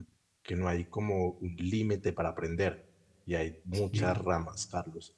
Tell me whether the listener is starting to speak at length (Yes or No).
No